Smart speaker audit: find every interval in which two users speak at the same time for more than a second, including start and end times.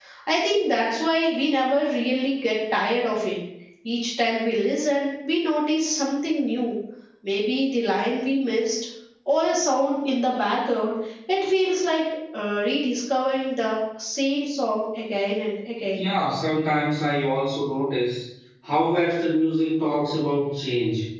none

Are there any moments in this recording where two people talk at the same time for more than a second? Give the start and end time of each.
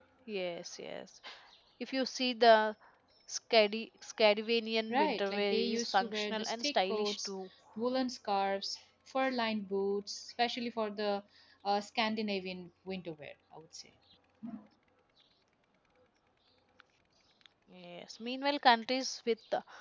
4.9-7.3

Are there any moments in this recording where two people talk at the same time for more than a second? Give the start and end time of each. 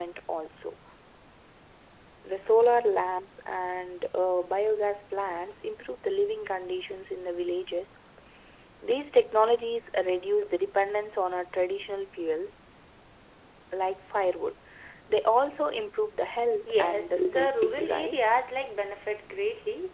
16.8-18.3

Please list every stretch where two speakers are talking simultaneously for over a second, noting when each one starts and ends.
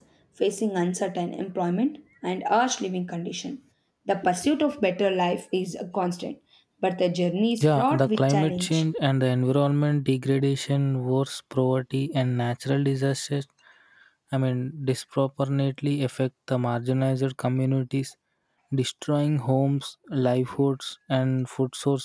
7.6-8.8

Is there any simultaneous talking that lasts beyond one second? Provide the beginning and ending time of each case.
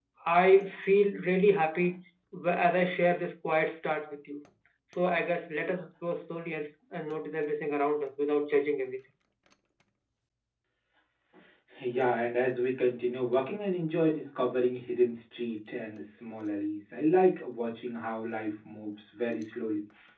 none

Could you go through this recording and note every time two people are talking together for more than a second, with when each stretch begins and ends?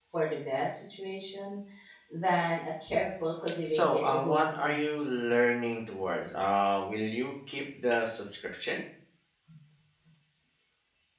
3.6-4.9

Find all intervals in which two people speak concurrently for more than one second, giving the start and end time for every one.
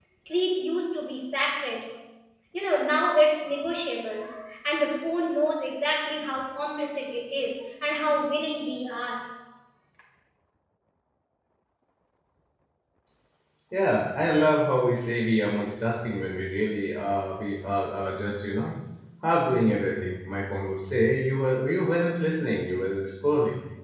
none

